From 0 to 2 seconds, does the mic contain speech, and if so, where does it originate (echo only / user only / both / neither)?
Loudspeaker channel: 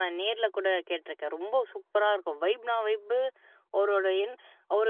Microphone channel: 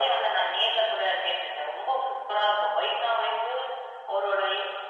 echo only